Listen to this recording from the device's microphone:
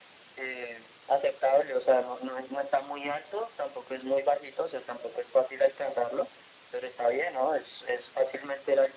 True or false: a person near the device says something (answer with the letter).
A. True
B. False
B